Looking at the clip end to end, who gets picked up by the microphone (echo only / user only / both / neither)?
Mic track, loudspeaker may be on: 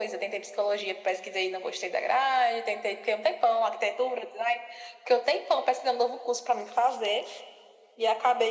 echo only